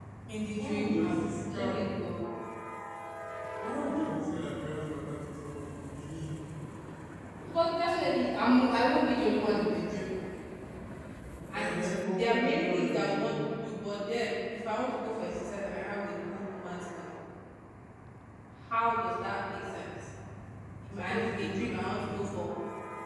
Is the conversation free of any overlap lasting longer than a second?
No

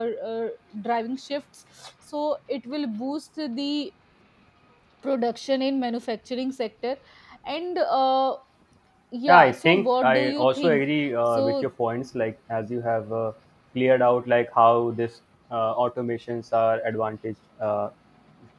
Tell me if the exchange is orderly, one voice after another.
No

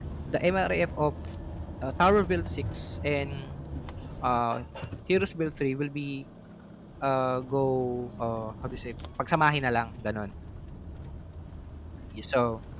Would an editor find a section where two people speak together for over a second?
No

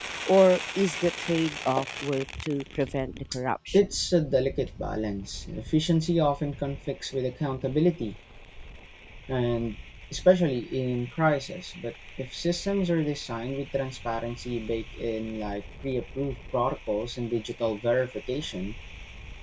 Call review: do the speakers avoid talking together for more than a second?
Yes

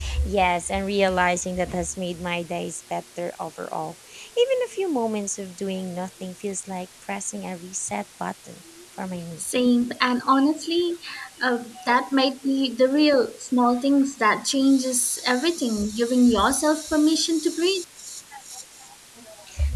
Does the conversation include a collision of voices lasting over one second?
No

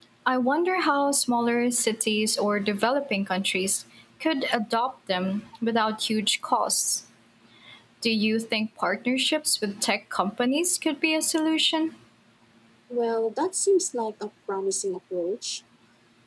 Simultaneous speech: No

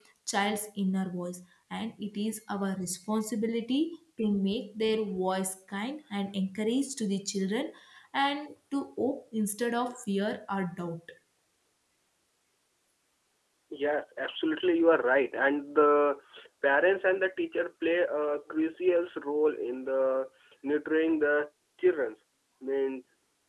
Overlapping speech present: No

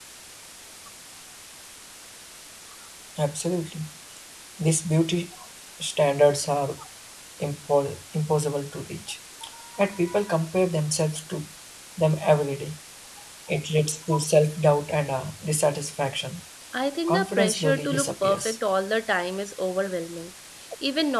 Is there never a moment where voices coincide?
No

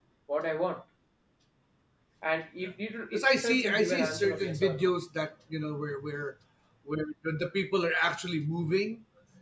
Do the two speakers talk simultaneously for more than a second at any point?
Yes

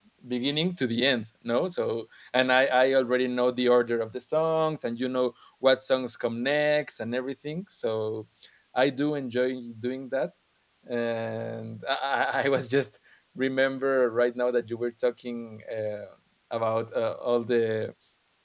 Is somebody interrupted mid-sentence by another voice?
No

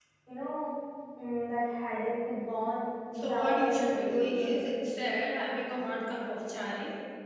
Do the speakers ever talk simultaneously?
Yes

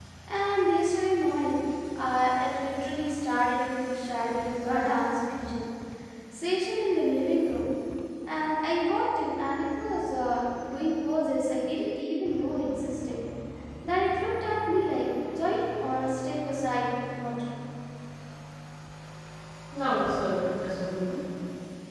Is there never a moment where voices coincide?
Yes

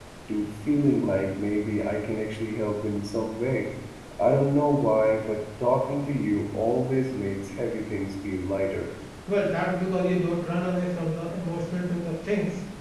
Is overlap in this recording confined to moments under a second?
Yes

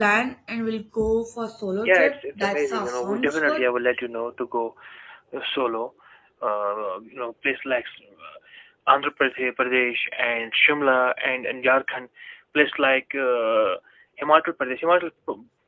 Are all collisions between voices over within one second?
No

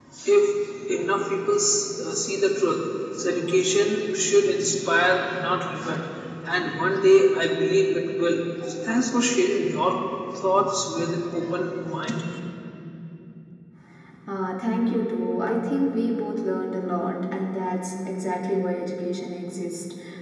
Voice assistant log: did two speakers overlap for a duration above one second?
No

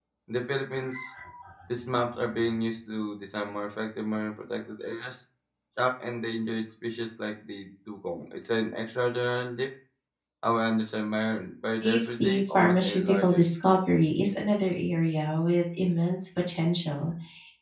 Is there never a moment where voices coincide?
No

